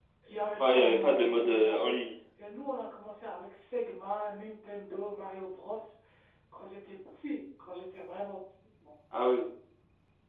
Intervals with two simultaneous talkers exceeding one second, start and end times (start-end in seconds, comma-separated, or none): 0.6-2.0